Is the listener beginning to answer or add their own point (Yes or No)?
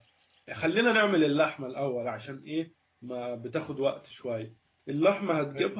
No